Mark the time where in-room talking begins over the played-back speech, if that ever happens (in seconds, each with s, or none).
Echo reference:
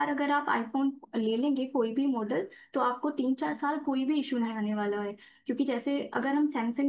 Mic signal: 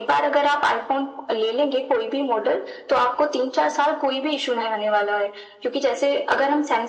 none